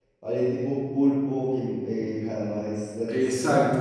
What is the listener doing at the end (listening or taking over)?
taking over